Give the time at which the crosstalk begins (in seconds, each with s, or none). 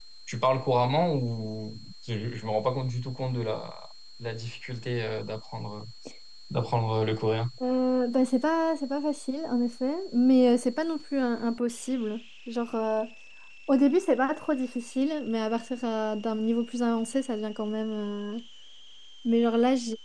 none